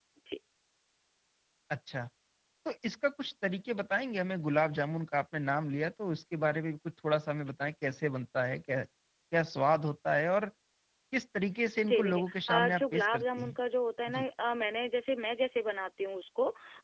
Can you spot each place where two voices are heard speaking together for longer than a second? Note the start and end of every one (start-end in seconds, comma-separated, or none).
11.9-13.5